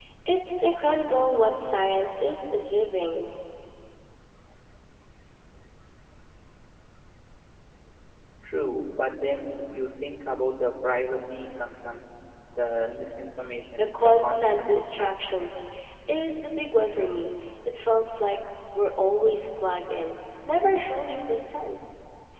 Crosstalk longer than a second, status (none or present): present